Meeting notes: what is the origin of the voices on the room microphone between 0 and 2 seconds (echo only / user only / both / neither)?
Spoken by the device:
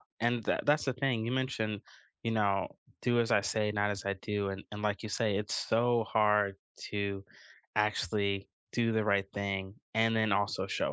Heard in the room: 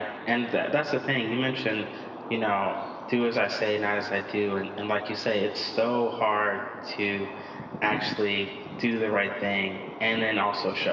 echo only